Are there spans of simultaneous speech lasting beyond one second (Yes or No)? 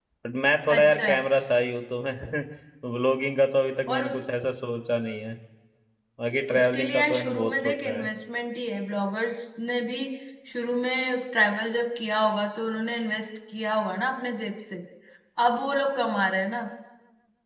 Yes